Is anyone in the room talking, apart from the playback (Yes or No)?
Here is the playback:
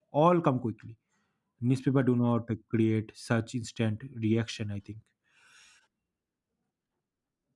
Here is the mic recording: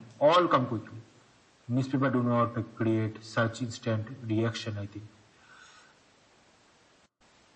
No